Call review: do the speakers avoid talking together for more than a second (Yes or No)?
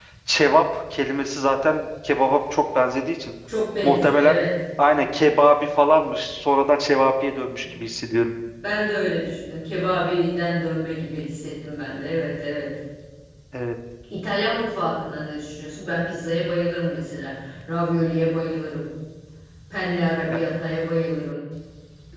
Yes